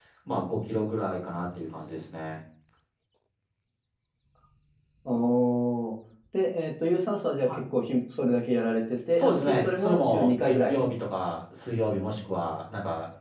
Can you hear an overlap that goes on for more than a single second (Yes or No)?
Yes